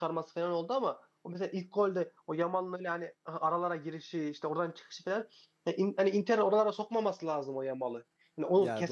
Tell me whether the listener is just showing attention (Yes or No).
Yes